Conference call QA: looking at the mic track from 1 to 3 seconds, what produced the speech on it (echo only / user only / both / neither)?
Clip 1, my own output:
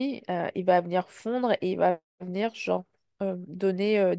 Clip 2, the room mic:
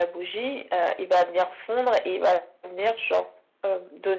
echo only